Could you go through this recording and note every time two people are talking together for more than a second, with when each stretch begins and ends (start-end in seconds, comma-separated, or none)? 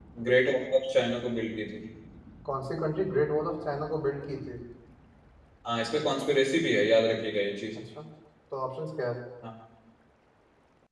none